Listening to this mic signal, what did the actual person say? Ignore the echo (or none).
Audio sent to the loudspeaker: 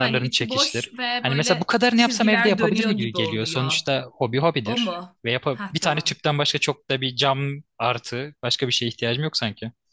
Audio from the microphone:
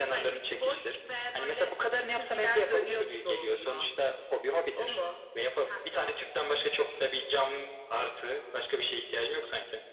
none